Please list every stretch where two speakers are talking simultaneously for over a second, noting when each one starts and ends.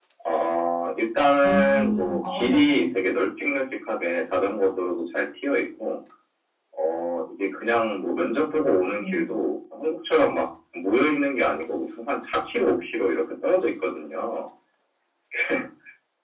1.4-2.9

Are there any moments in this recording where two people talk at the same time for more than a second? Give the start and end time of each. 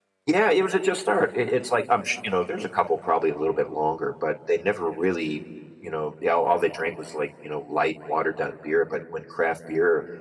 none

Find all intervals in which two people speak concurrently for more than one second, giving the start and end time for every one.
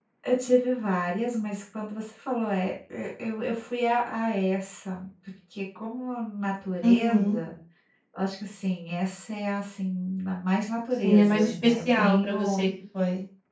11.0-12.7

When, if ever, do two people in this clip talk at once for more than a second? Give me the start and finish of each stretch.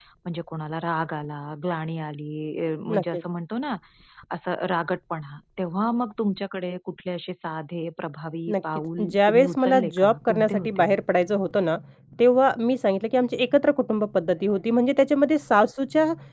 8.5-10.9

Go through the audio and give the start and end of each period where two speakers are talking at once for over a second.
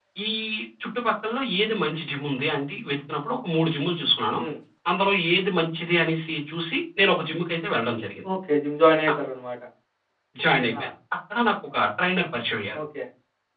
none

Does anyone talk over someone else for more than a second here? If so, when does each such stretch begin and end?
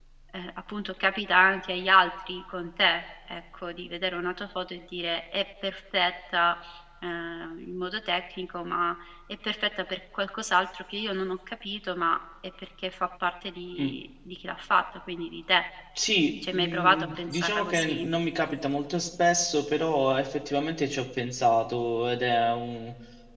16.5-18.0

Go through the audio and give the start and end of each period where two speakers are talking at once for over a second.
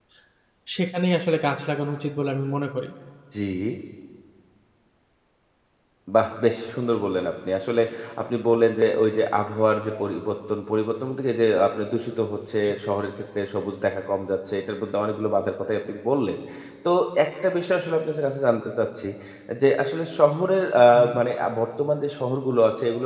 none

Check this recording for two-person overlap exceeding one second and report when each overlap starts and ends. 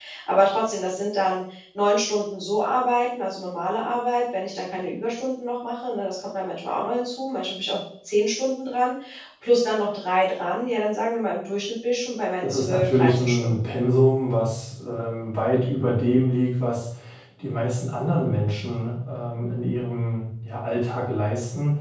12.4-13.7

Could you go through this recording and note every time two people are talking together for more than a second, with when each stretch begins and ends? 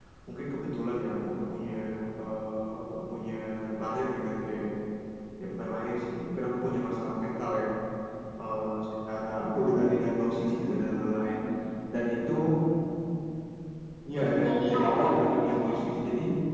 14.4-15.9

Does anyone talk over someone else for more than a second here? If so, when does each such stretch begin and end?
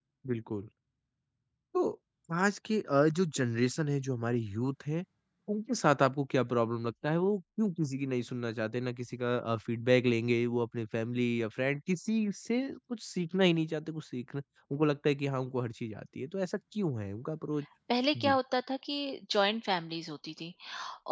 none

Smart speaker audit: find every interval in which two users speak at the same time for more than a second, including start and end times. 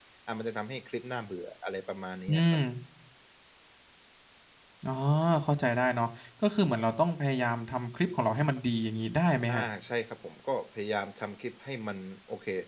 none

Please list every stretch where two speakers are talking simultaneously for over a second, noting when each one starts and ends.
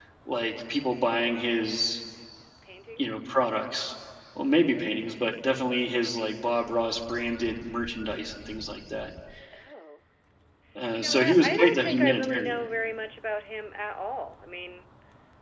11.0-12.6

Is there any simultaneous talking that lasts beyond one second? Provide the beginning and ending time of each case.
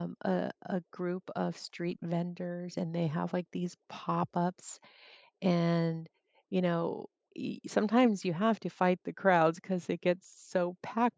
none

